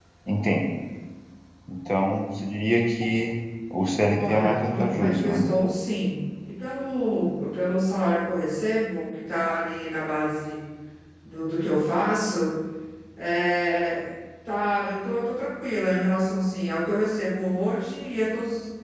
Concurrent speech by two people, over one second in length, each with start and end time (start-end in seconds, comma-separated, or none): 4.2-5.5